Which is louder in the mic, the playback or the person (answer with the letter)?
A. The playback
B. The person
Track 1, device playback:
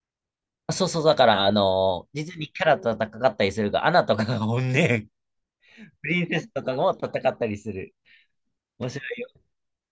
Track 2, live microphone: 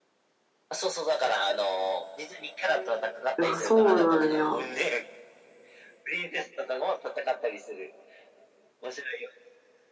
B